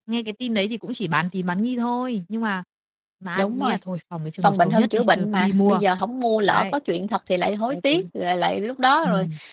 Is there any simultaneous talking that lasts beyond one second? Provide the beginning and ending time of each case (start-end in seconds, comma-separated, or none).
4.4-5.8